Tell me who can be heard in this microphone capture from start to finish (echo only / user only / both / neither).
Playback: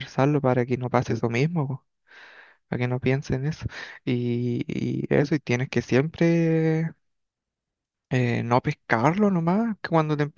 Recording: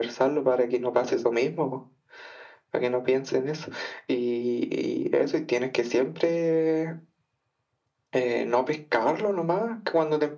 echo only